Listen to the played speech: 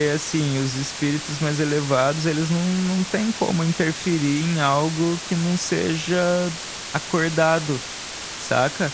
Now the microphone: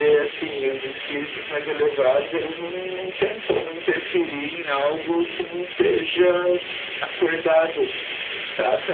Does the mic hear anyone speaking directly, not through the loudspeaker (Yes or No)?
No